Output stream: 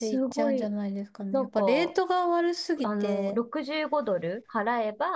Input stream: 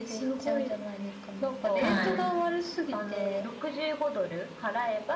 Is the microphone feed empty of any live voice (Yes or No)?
No